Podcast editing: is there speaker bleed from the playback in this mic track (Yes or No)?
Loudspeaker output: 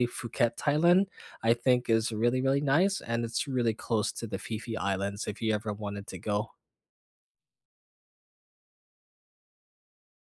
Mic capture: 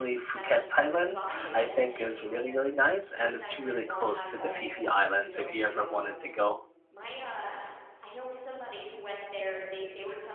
Yes